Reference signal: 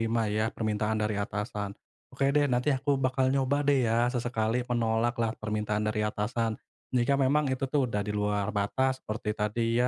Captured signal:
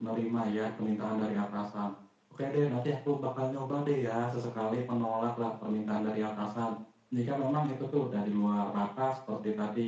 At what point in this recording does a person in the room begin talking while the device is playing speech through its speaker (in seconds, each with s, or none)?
none